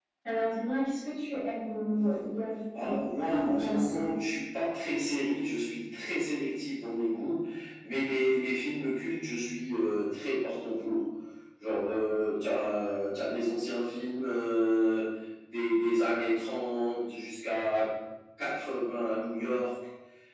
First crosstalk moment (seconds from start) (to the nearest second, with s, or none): 3 s